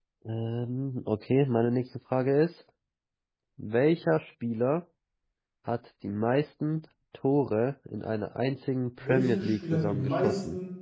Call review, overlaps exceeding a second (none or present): present